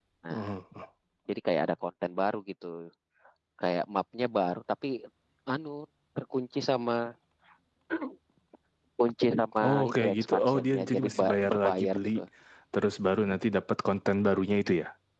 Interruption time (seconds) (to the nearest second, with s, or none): 10 s